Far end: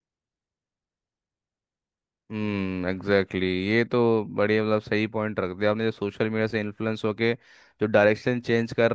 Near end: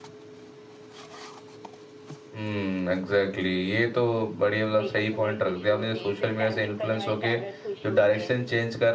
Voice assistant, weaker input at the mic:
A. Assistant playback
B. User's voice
B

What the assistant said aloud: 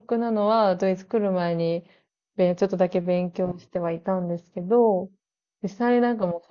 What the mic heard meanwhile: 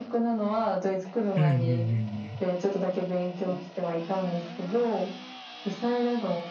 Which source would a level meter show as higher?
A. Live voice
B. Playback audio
A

